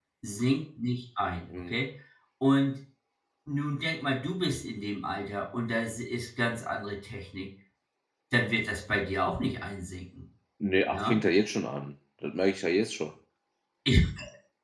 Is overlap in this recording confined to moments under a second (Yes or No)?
Yes